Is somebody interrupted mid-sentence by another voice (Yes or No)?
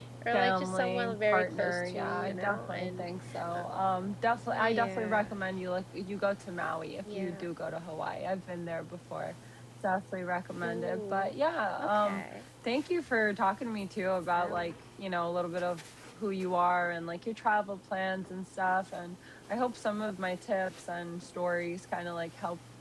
Yes